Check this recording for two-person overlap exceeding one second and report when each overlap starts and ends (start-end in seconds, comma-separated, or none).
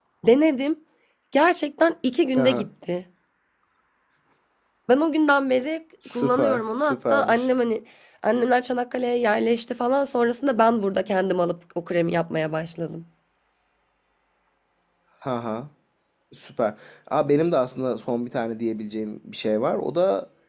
6.1-7.5